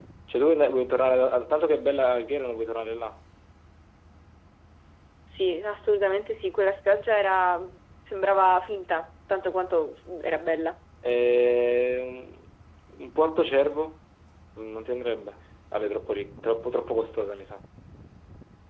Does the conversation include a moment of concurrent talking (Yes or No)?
No